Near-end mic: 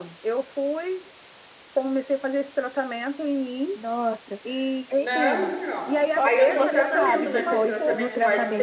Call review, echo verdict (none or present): present